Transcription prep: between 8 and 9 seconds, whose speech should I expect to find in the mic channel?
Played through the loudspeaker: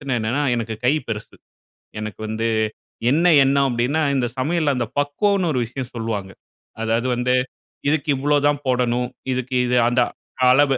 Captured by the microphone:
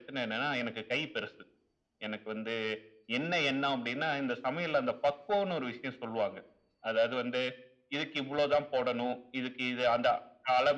echo only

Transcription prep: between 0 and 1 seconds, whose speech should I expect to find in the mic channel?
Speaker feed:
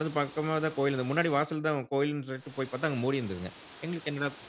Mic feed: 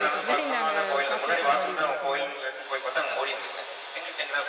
both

